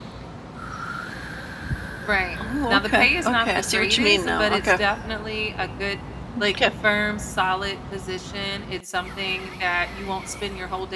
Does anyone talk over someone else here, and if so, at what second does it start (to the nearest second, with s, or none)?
3 s